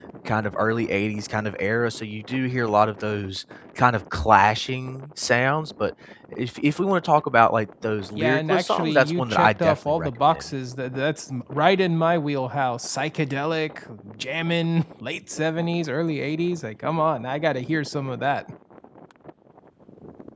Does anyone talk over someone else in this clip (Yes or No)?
Yes